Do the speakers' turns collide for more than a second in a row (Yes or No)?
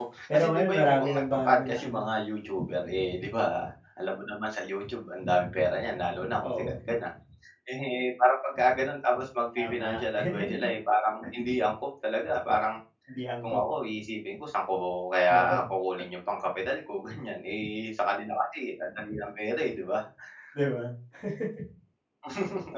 Yes